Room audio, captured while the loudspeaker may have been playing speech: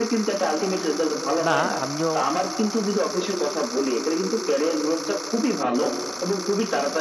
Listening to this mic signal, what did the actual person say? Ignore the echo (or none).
না, আমিও